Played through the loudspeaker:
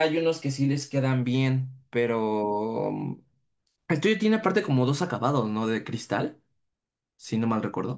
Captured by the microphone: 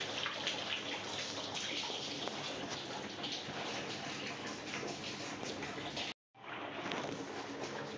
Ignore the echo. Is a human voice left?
No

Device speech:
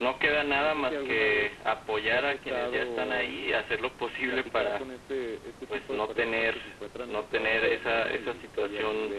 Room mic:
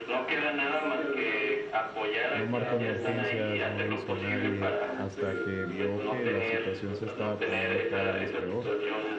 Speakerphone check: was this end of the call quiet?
No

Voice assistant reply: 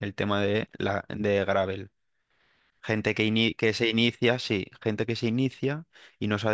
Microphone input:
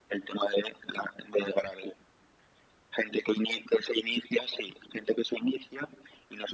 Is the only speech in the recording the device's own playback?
Yes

